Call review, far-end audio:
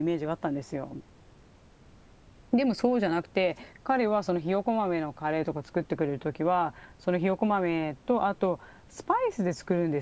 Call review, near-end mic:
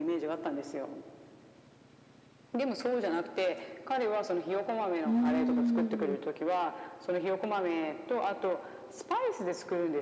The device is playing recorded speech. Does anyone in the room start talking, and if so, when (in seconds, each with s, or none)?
5.0 s